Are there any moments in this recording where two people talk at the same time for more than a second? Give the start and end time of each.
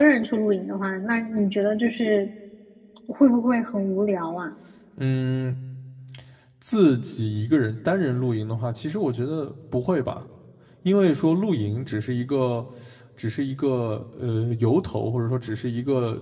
none

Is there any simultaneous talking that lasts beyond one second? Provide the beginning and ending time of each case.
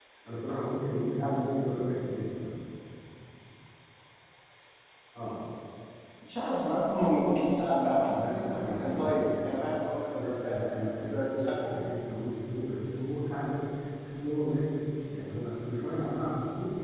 8.0-9.7, 10.1-11.5

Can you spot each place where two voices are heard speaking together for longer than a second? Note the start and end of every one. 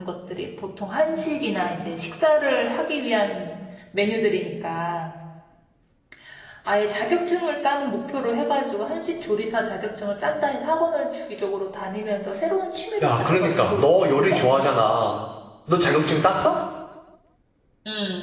13.0-14.4

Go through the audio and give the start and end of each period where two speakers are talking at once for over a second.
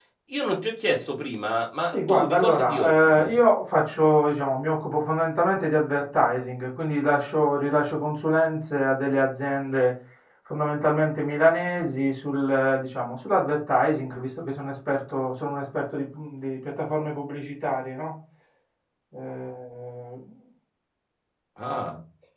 1.9-3.3

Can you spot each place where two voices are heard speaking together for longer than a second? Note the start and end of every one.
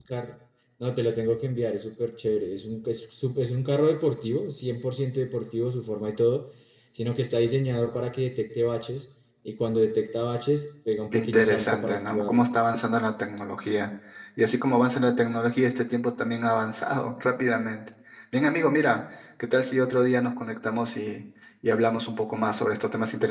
11.1-12.4

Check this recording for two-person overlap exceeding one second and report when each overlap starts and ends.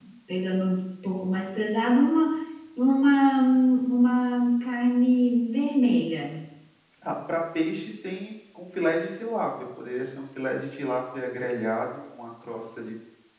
none

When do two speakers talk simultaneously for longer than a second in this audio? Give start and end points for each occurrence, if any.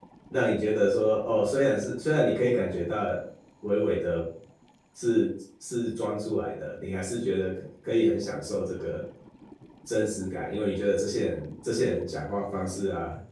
none

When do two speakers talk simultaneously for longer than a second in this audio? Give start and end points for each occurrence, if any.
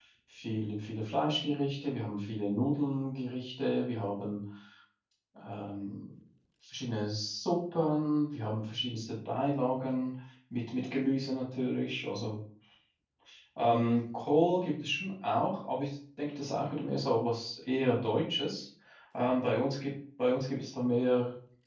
none

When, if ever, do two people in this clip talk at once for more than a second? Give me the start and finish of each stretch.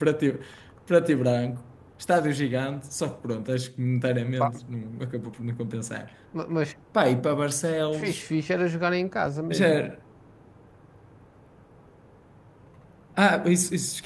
none

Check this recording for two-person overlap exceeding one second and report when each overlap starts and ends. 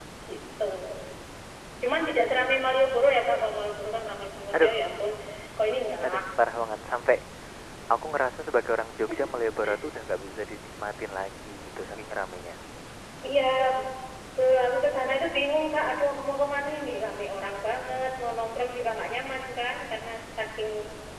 none

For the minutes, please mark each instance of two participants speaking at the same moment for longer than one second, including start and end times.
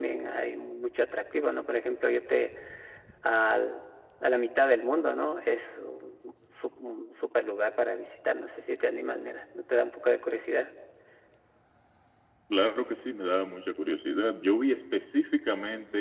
none

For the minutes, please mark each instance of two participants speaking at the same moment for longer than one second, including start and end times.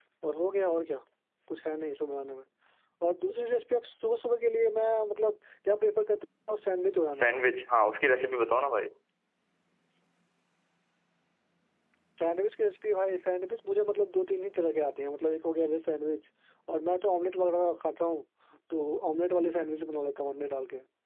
none

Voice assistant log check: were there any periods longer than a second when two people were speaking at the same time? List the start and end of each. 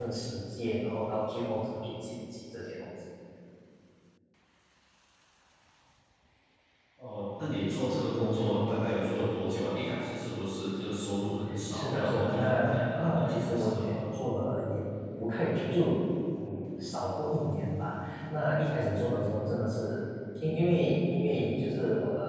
11.7-14.0

